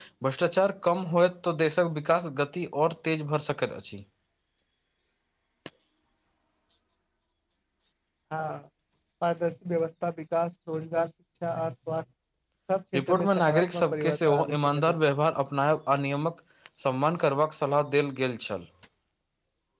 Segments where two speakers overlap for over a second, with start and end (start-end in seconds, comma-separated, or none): 12.9-14.9